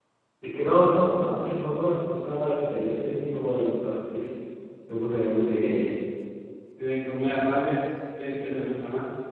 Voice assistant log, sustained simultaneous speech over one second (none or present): none